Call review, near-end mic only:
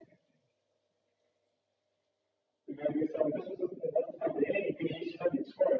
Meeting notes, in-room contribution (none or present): none